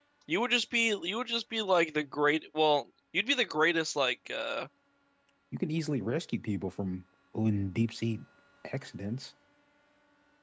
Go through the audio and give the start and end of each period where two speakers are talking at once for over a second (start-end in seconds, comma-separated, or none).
none